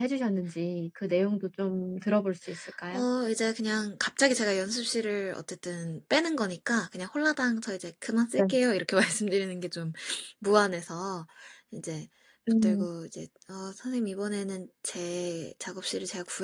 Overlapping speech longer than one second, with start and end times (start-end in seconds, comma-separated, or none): none